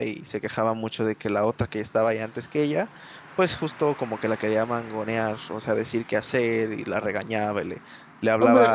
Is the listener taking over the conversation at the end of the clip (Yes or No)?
Yes